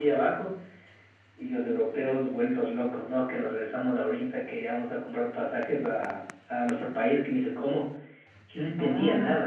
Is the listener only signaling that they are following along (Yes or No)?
Yes